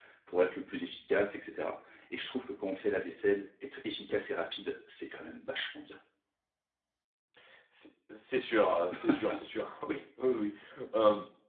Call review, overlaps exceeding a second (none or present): none